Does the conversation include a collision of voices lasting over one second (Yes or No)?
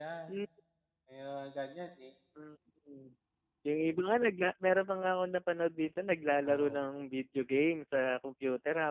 No